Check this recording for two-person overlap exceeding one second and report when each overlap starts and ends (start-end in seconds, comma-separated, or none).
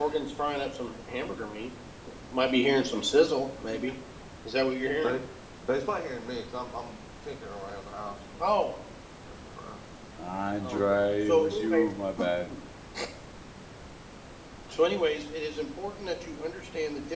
10.6-11.8